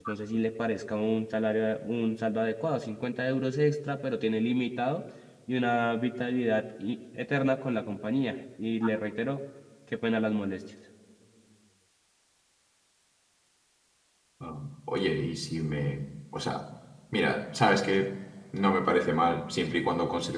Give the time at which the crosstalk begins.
none

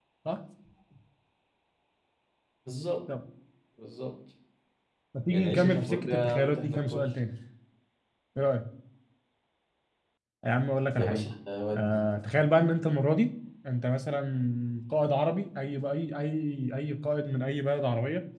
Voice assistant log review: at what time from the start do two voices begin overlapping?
5 s

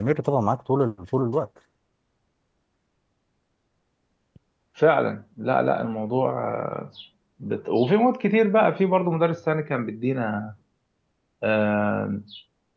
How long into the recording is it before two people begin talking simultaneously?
none

